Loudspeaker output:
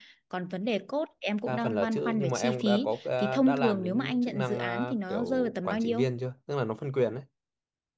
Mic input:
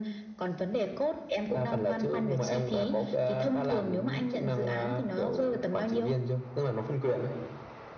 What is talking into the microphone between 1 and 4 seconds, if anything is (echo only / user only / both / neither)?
echo only